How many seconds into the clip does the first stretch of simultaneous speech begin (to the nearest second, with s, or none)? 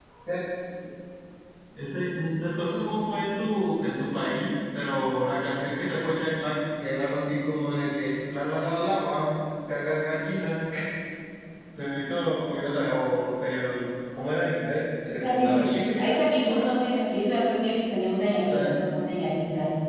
15 s